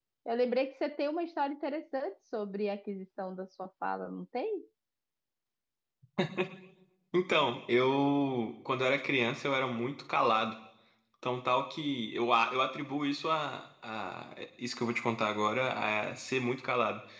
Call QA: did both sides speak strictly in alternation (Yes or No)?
Yes